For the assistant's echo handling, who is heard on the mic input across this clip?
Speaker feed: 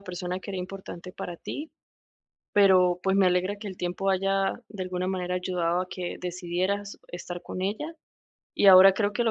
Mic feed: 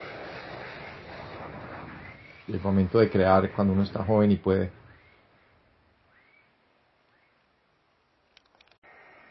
user only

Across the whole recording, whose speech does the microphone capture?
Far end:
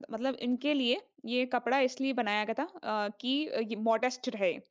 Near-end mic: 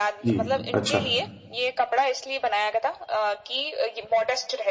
both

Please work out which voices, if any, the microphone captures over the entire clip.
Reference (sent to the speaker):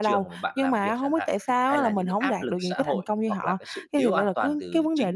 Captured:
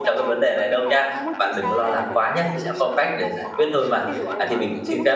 both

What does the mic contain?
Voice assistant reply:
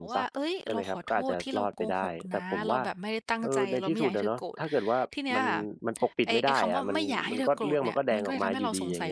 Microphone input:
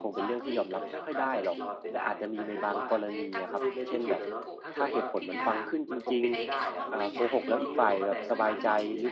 both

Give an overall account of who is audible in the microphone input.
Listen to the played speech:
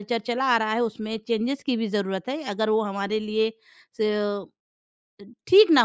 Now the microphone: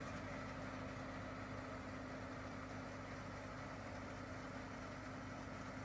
neither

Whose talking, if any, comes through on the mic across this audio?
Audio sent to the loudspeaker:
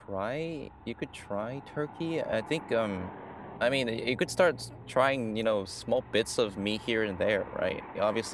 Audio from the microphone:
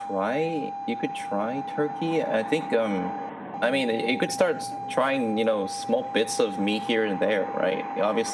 echo only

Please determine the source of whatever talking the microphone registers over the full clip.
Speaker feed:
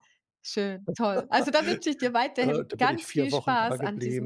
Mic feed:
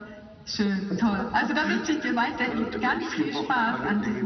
echo only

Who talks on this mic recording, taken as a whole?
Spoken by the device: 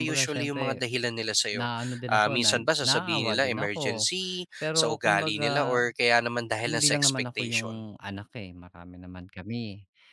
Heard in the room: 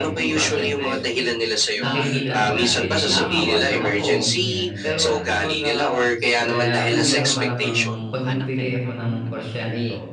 both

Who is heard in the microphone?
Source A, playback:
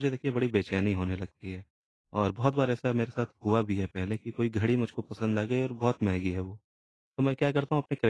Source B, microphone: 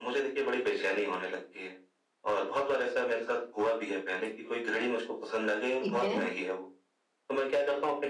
both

